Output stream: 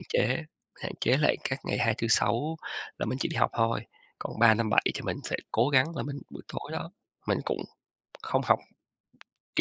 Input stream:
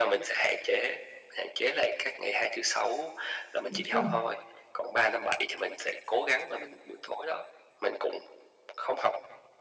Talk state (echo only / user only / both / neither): both